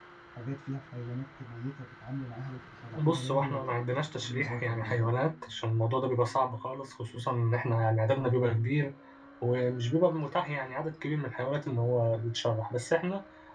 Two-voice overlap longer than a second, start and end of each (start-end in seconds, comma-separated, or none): 2.9-5.2